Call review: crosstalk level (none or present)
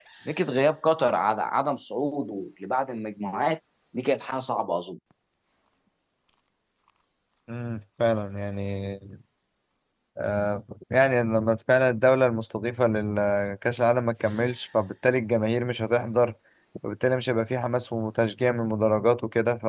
none